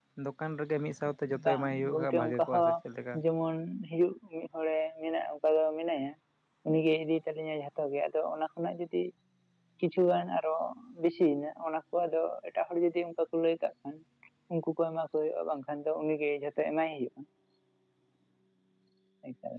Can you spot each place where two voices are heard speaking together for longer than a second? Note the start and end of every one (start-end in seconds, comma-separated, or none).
1.4-2.7